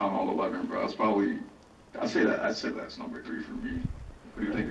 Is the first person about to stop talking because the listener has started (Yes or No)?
Yes